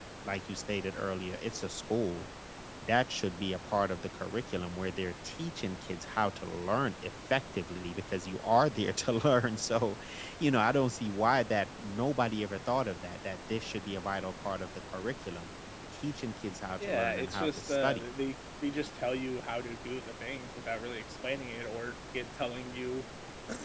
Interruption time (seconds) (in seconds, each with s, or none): 16.8 s